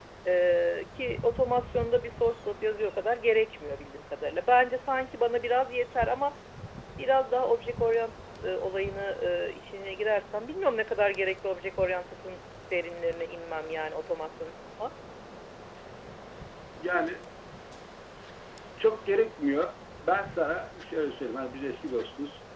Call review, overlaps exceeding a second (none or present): none